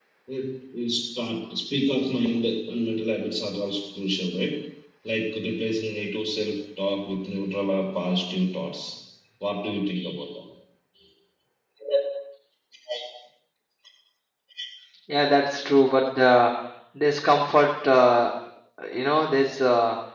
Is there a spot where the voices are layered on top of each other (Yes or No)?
No